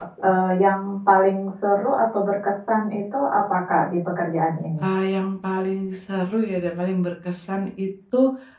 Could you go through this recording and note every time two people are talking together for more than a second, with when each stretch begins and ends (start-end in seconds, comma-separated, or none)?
none